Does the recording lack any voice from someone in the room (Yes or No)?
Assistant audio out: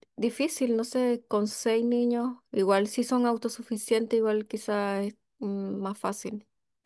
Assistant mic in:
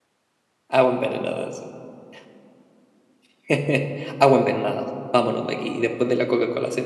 No